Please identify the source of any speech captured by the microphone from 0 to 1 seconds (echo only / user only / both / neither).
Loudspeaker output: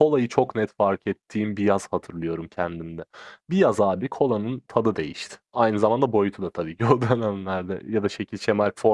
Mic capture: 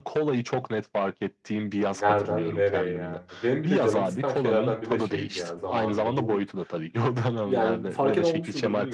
echo only